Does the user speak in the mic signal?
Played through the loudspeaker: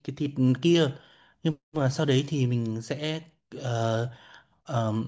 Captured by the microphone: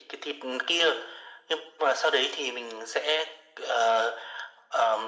No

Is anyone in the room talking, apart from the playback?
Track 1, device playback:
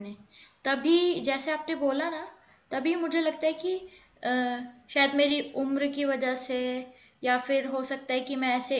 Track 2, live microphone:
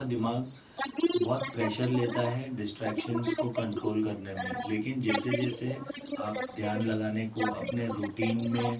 Yes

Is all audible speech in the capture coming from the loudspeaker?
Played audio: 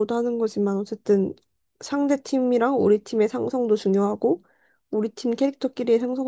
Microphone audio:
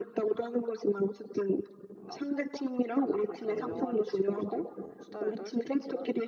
No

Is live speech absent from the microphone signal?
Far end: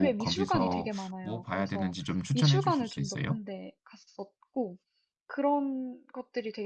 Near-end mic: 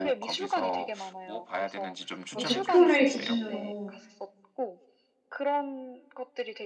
No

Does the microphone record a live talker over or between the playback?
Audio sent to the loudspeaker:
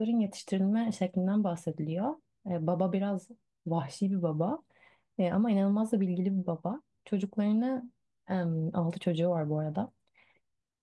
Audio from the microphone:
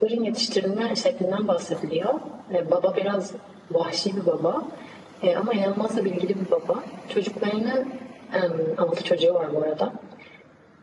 No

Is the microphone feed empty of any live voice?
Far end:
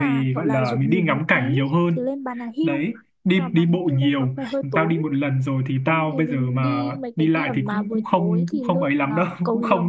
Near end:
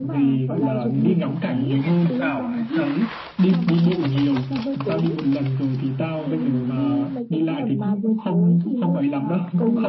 No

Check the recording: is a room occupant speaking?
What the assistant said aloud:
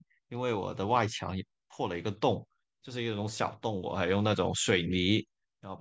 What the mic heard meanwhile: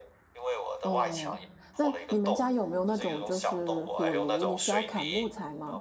Yes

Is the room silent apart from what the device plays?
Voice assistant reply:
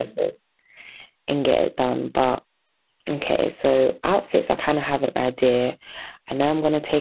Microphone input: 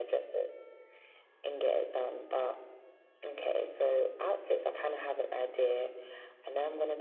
Yes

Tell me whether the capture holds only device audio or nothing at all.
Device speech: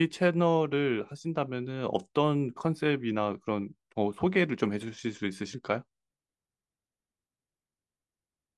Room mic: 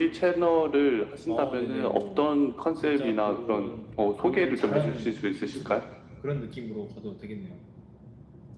No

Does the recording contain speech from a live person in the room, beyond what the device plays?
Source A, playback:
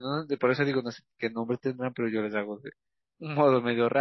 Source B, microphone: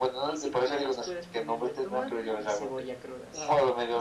Yes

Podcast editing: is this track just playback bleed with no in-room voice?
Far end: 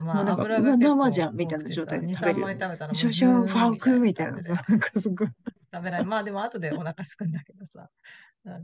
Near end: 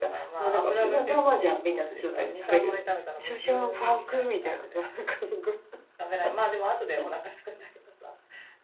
Yes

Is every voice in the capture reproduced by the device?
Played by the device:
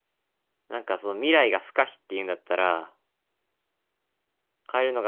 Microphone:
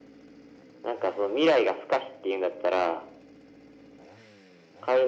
Yes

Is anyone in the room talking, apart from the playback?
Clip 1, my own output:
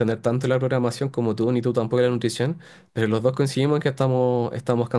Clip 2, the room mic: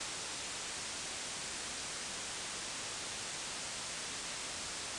No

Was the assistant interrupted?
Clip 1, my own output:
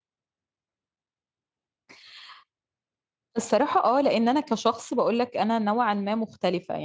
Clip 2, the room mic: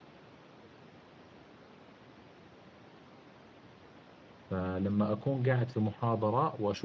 Yes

